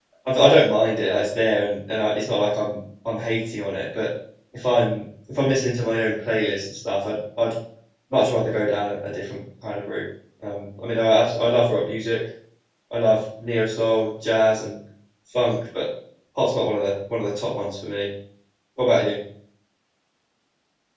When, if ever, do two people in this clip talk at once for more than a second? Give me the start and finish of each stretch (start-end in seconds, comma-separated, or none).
none